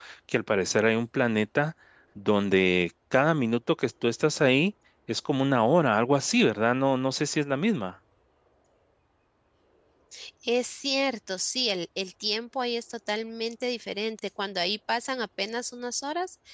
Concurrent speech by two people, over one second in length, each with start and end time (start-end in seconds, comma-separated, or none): none